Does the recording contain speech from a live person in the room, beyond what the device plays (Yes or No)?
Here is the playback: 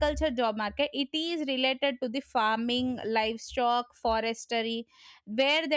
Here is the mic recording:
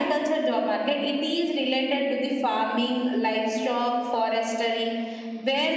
No